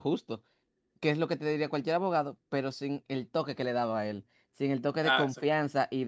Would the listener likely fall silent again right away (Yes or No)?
Yes